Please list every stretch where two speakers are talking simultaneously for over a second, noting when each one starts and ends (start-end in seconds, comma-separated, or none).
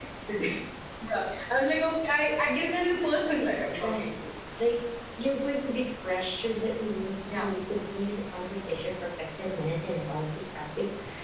2.4-4.1